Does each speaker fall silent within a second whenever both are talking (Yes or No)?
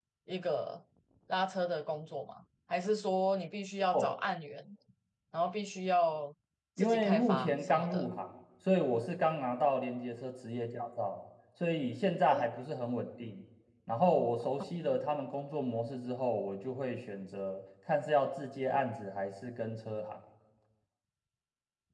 No